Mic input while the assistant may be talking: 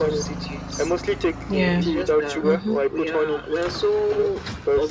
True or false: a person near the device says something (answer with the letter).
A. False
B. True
B